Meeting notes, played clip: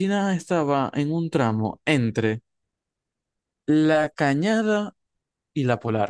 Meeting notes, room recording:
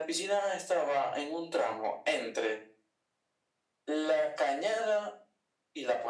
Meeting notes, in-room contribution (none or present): none